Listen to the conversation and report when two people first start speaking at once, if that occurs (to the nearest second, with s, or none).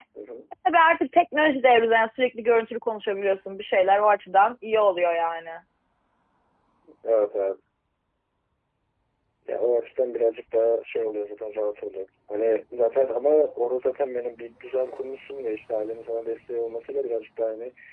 none